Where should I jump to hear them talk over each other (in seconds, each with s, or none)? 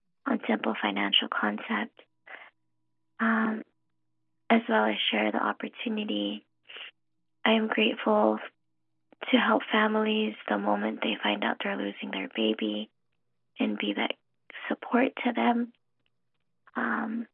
none